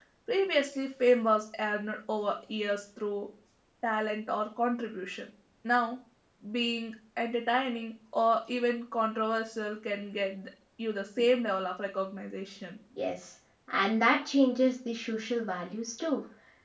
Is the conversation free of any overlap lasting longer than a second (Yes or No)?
Yes